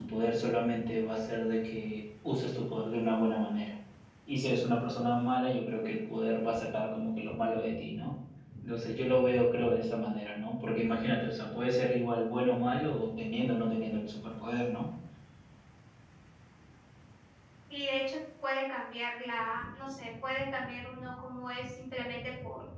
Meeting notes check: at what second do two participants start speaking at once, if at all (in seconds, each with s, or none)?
none